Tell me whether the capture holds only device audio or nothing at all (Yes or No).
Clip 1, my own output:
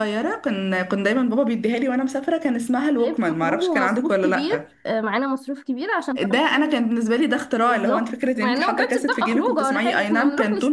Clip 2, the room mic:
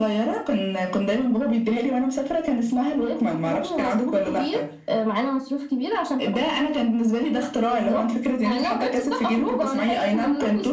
Yes